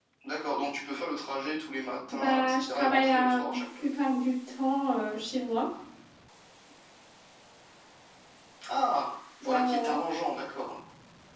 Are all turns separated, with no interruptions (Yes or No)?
No